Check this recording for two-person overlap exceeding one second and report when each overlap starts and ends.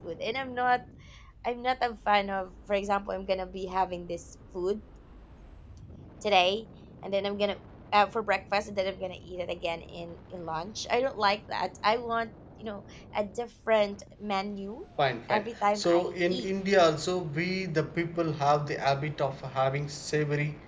15.3-16.5

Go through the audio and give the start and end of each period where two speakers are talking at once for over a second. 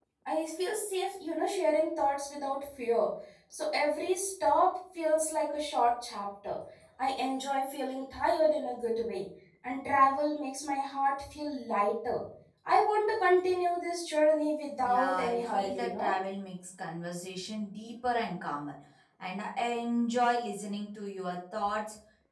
14.8-16.1

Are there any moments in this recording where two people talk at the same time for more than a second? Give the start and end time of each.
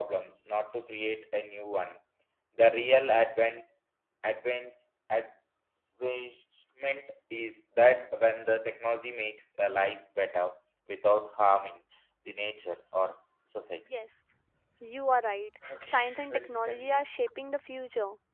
15.7-17.0

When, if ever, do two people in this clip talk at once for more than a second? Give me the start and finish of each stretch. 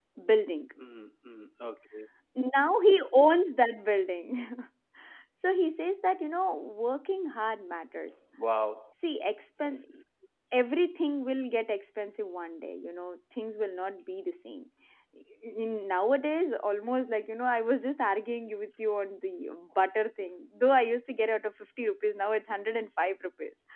none

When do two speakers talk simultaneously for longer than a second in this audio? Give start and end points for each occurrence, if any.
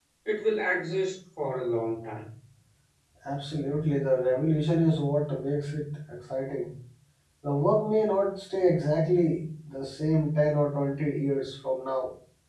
none

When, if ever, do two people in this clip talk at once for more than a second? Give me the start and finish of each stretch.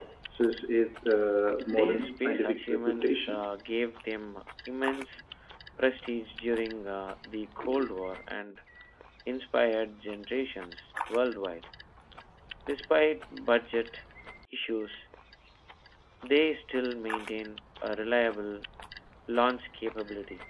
1.7-3.4

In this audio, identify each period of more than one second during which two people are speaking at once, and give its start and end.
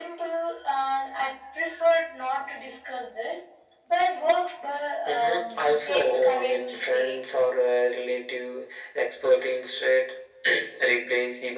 5.1-7.2

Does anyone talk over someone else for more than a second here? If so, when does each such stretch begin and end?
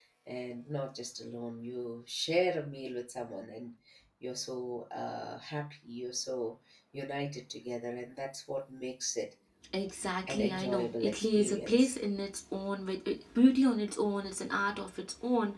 10.3-12.0

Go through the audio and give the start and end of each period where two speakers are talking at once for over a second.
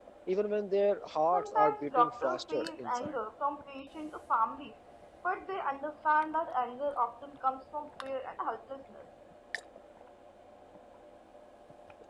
1.3-3.1

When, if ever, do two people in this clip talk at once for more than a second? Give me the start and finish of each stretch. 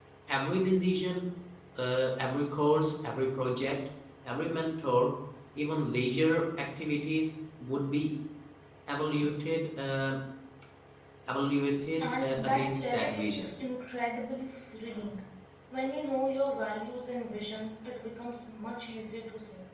12.0-13.5

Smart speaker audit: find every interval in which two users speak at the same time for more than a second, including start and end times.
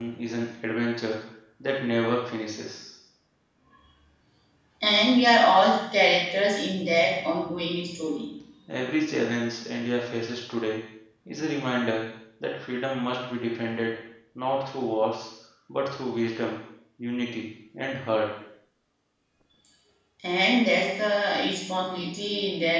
none

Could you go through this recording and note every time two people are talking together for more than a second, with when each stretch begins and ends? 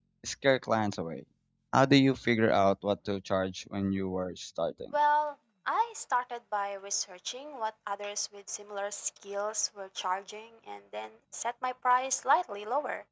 none

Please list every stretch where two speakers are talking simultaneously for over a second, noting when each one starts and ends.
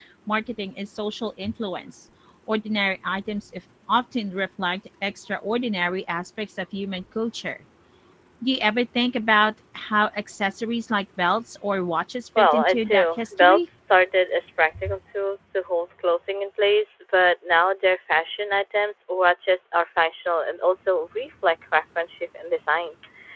12.4-13.6

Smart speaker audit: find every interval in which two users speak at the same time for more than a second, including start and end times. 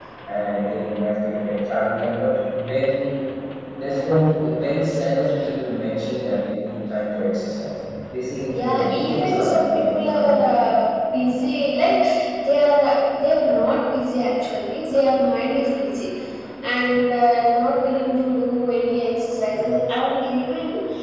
8.5-10.6

